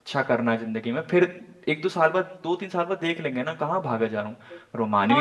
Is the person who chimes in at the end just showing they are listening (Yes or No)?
No